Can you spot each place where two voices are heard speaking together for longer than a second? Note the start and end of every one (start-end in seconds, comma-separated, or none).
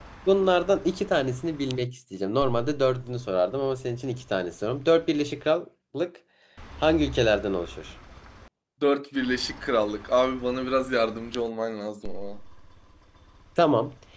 none